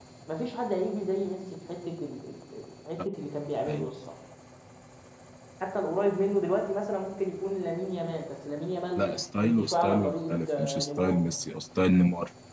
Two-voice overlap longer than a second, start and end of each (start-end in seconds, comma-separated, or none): 9.4-11.2